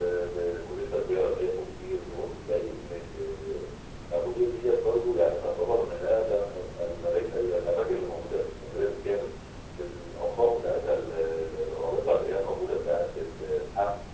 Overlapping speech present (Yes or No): No